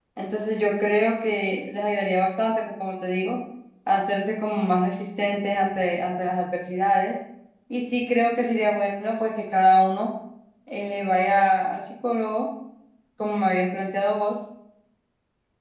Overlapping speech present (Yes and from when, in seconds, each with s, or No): No